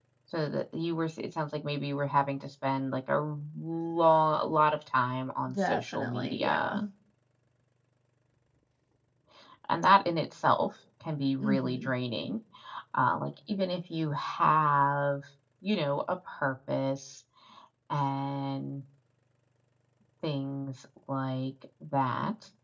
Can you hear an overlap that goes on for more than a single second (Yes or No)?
Yes